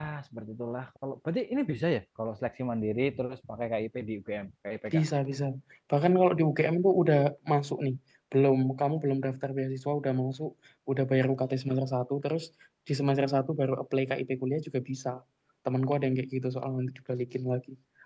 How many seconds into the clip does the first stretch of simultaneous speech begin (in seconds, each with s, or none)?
none